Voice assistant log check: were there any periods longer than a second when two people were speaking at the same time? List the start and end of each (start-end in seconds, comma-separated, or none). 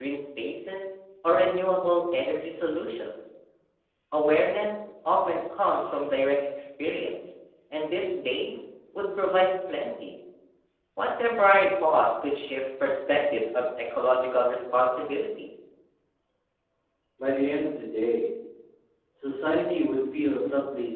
none